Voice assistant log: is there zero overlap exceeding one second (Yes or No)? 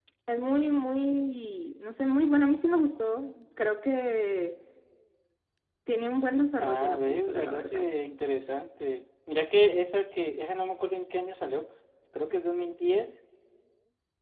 No